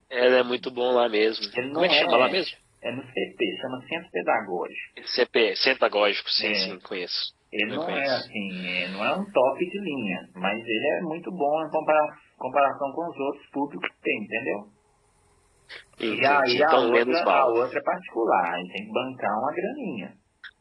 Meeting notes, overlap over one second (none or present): present